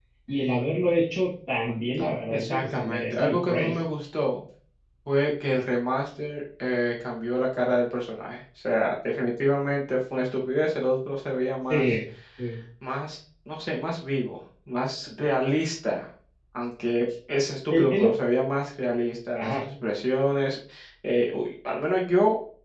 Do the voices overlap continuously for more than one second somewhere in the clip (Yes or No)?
Yes